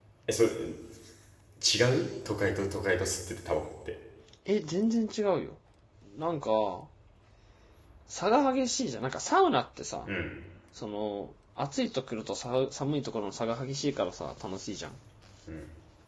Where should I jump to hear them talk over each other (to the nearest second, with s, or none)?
none